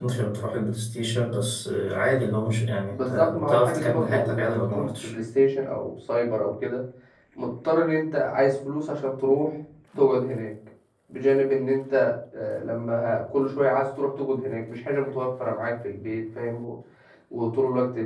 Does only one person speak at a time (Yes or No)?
No